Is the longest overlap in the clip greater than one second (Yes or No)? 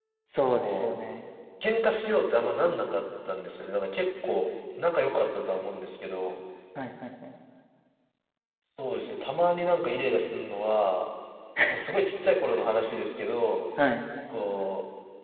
No